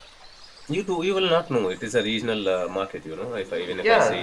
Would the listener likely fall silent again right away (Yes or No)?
No